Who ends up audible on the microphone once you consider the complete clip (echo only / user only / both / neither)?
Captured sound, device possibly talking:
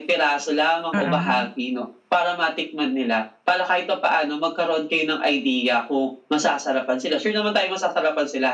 both